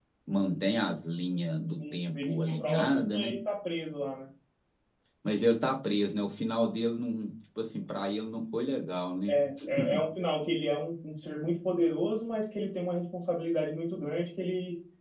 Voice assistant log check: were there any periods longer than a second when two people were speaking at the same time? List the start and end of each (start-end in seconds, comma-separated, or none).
1.8-3.3